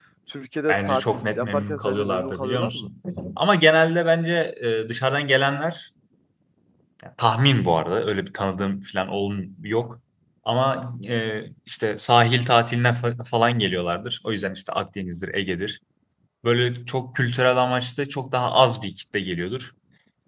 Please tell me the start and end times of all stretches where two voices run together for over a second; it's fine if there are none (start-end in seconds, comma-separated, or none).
0.7-2.9